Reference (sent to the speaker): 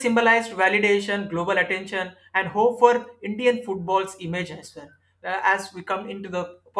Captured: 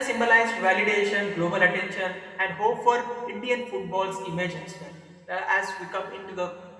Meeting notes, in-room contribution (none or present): none